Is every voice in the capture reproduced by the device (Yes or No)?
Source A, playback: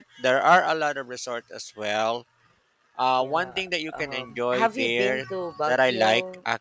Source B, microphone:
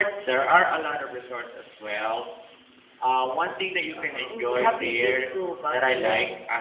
No